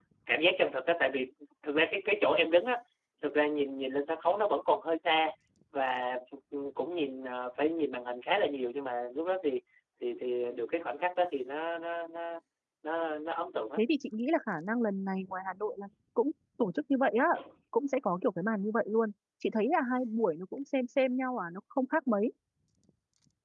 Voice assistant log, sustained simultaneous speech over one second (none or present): none